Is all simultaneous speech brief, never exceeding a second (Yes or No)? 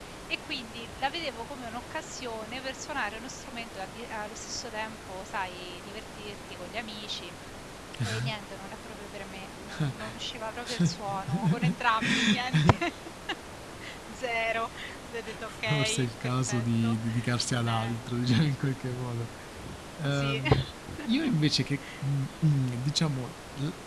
No